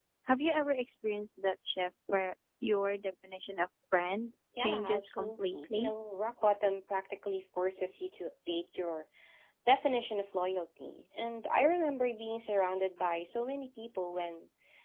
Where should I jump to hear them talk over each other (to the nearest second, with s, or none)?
5 s